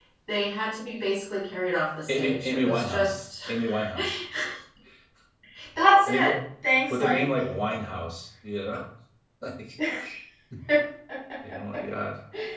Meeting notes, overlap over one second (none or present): present